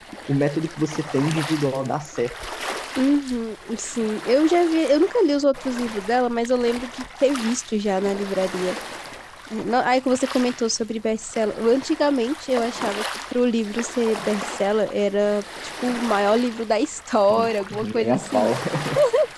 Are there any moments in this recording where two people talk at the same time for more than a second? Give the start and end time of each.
17.3-18.5

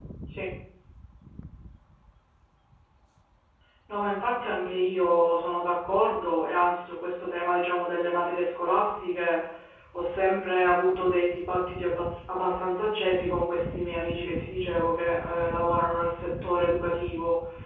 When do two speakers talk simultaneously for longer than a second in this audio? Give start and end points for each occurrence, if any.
none

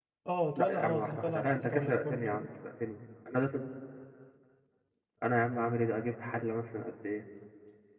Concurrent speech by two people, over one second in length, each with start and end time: 0.6-2.5

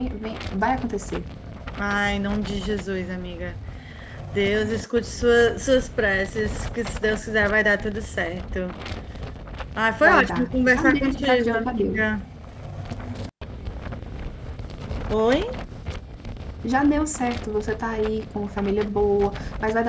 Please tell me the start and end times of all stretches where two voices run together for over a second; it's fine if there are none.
10.0-12.1

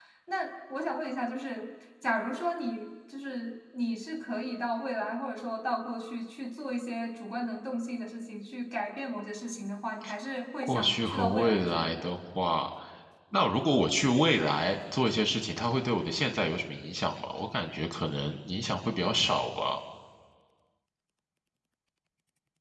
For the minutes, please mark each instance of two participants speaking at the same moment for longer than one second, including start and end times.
10.6-11.9

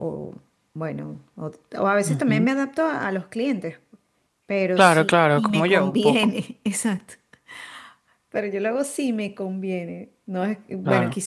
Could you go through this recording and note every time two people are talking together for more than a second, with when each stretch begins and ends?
4.8-6.2

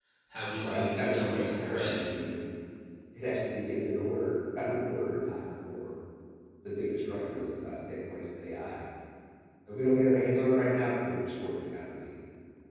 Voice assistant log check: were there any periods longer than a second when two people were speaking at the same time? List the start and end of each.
0.6-2.2

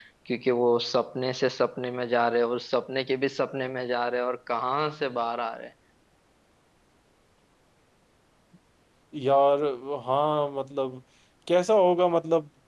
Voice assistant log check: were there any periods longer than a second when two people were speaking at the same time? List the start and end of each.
none

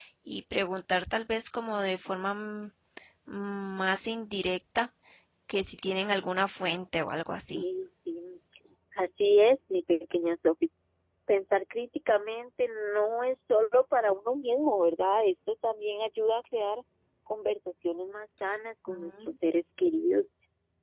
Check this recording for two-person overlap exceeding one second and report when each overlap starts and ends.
none

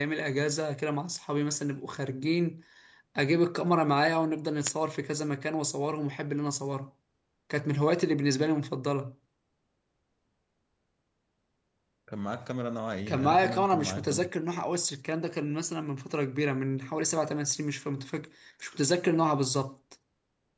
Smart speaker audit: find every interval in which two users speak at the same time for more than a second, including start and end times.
13.1-14.3

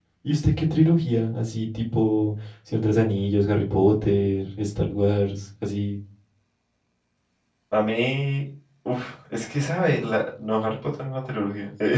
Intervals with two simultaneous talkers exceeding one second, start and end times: none

